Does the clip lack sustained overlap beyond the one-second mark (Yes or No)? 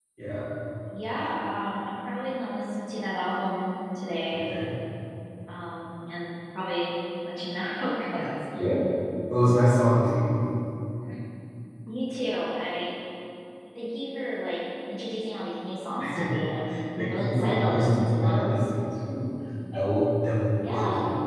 No